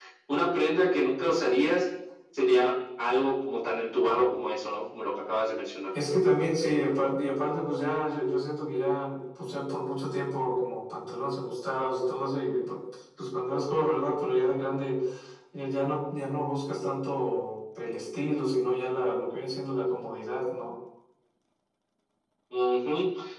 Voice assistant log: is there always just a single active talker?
Yes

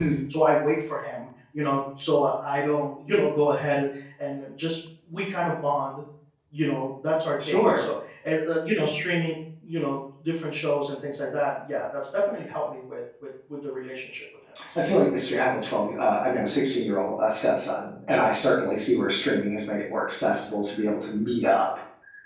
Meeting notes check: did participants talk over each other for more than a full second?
No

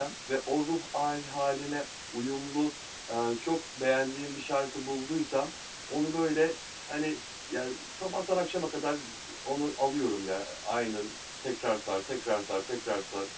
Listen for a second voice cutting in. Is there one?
No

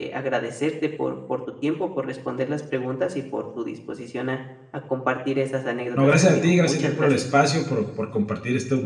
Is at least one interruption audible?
Yes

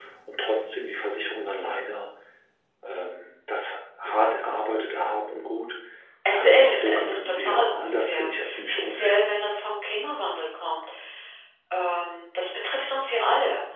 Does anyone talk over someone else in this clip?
Yes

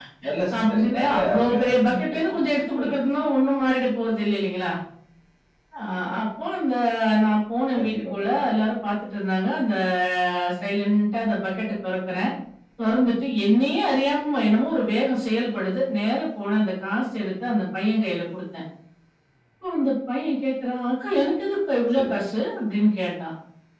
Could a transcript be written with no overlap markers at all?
No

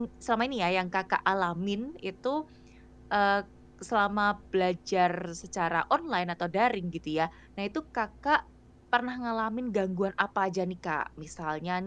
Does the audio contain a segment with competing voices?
No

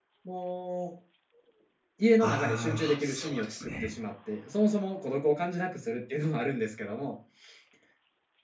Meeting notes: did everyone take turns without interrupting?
No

